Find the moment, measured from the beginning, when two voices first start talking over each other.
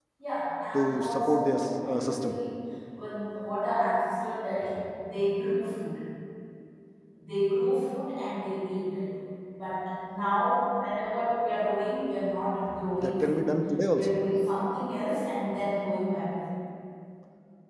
0.7 s

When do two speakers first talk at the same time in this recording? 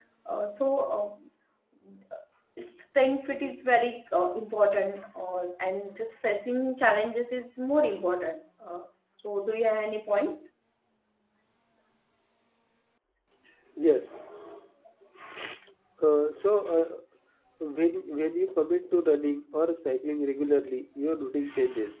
none

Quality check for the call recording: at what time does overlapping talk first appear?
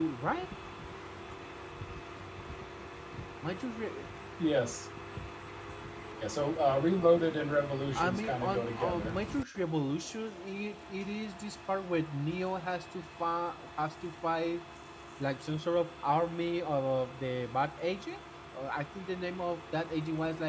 7.9 s

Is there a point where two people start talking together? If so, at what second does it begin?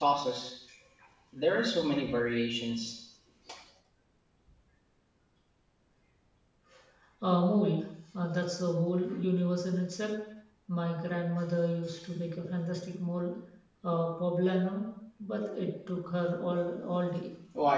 none

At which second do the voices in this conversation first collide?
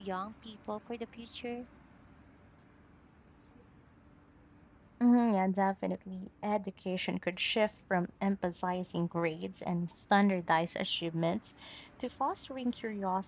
none

